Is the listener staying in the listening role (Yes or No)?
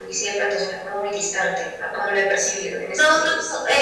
No